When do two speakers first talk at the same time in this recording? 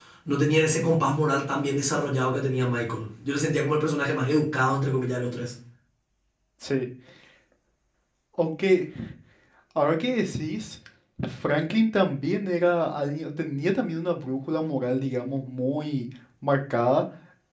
none

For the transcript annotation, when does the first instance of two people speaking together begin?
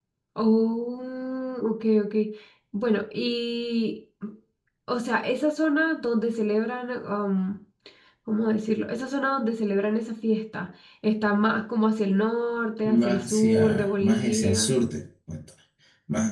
12.8 s

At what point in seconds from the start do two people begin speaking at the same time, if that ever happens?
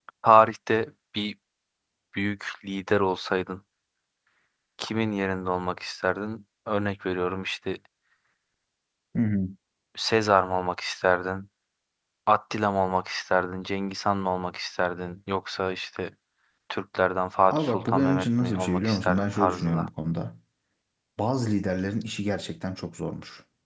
17.5 s

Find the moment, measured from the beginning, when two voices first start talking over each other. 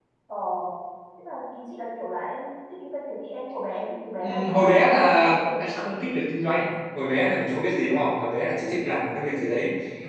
4.2 s

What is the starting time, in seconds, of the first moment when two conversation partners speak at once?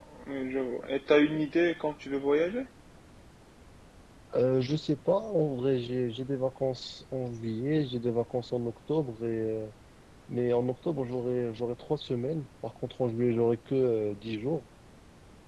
none

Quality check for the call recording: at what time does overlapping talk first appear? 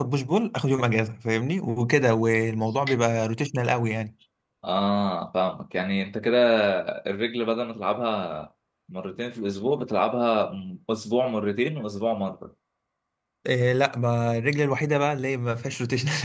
none

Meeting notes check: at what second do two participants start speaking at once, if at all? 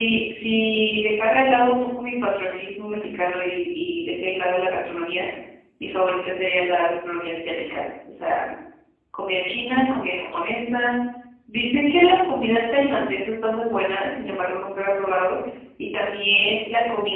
none

